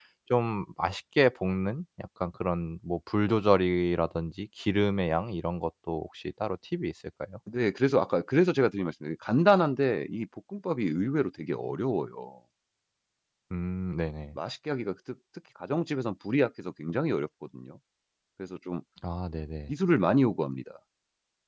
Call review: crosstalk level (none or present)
none